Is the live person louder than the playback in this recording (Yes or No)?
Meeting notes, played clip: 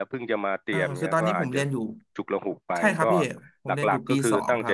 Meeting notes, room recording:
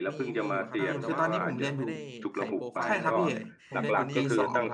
No